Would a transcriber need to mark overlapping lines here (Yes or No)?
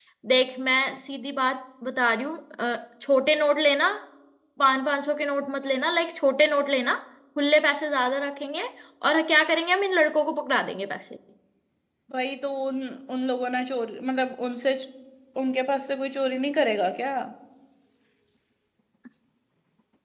No